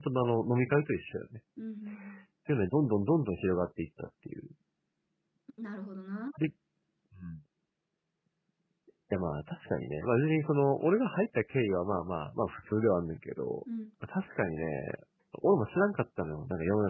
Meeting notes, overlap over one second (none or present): none